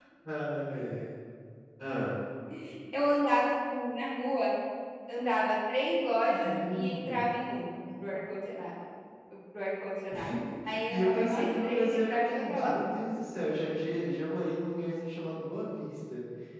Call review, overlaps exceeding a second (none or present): present